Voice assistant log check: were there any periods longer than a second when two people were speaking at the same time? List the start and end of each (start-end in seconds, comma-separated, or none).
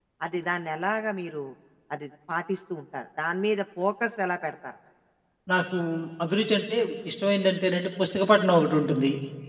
none